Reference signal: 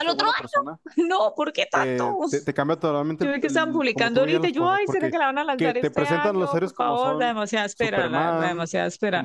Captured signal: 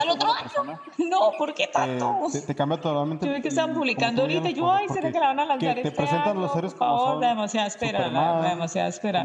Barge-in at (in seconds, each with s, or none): none